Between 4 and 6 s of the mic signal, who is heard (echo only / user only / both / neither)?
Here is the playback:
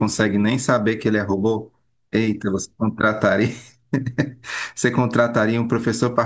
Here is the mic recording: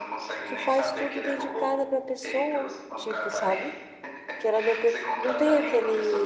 both